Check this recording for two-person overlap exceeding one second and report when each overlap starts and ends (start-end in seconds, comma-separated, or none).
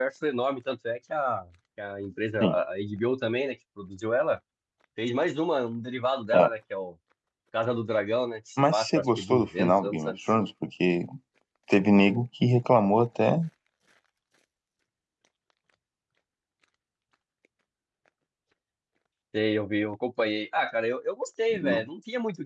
8.6-10.2